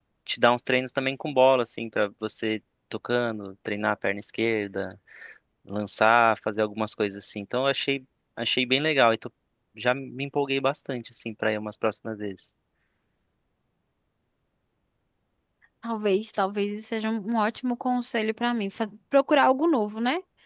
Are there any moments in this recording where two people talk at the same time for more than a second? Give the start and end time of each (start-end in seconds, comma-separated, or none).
none